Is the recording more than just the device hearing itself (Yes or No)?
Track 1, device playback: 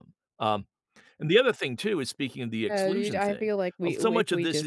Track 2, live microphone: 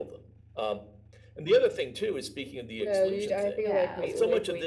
Yes